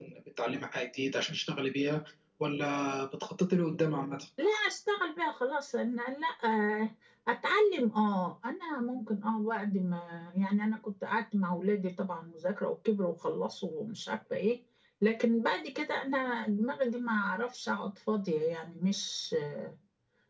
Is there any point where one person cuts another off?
No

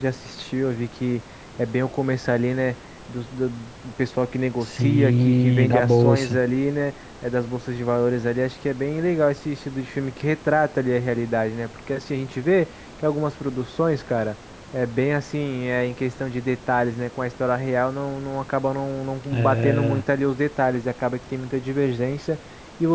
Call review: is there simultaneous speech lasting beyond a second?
Yes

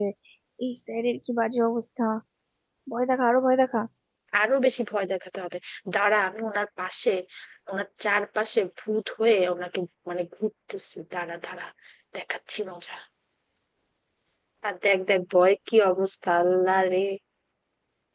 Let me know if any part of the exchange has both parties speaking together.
No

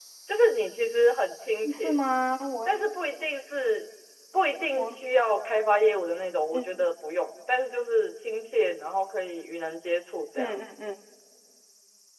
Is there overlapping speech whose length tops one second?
No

